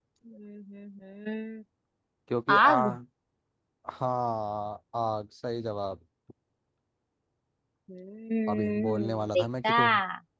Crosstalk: present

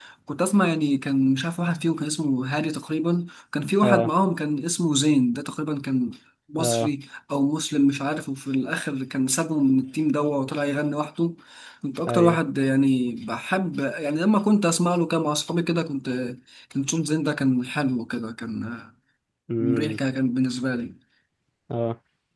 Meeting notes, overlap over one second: none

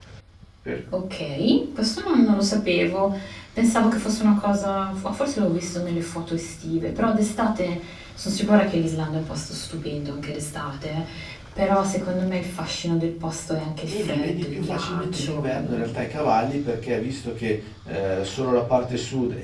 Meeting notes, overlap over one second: present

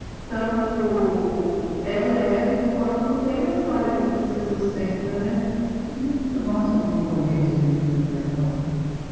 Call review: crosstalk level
none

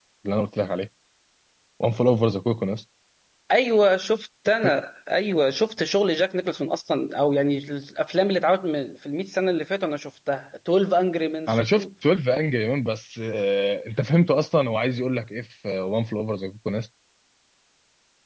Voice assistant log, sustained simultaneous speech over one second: none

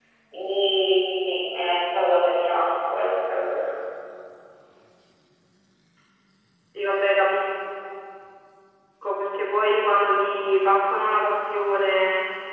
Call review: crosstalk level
none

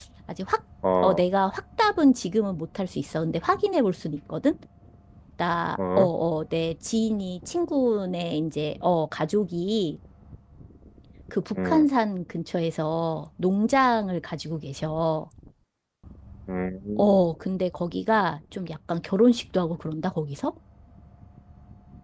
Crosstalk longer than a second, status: none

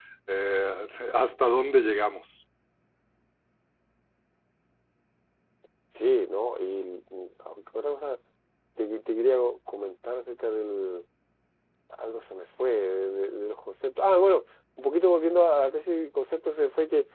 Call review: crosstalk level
none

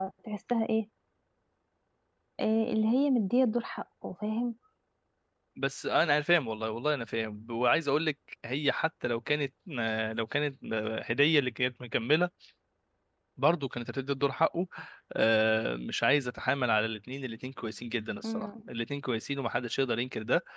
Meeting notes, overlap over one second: none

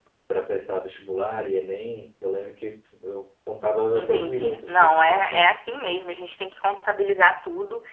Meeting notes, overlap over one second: present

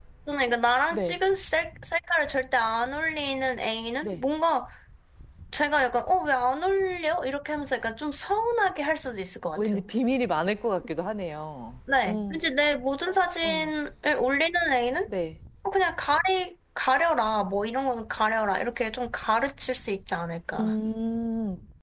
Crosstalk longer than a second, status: none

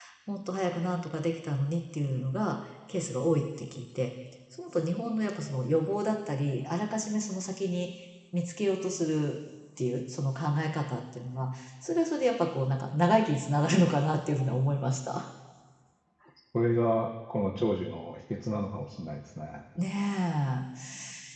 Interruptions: none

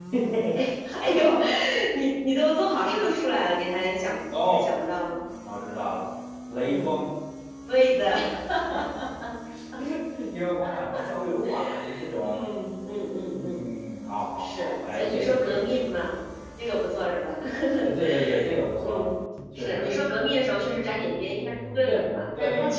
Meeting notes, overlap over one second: present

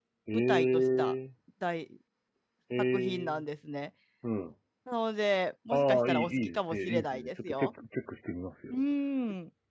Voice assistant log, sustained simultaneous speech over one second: present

